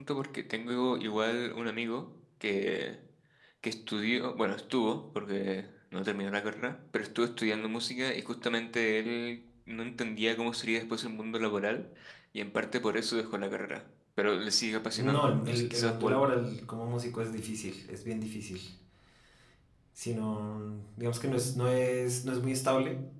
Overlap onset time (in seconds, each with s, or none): 14.9 s